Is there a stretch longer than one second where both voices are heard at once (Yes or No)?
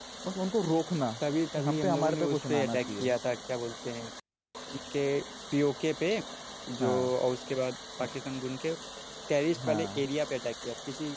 Yes